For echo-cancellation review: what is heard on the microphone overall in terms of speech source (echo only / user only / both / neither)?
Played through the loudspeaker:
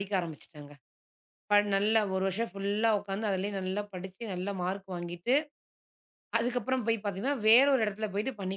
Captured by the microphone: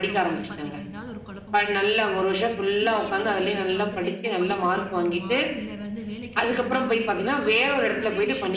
both